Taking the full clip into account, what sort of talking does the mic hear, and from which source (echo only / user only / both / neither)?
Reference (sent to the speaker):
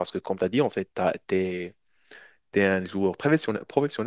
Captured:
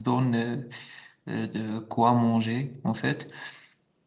user only